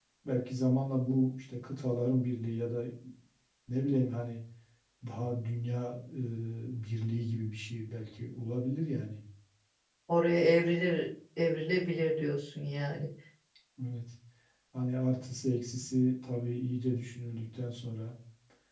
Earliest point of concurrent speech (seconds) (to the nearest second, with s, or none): none